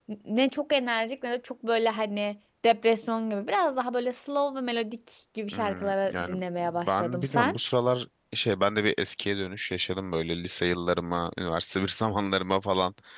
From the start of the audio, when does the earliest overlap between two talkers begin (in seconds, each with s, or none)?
5.5 s